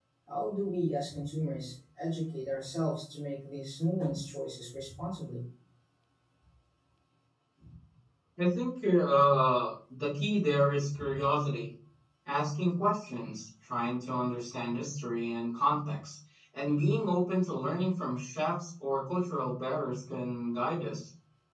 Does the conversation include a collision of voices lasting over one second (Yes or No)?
No